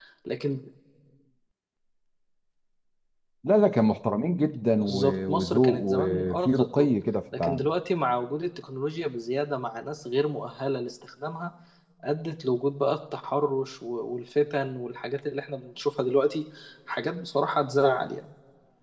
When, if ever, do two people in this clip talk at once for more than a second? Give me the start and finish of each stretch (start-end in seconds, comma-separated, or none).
4.9-6.9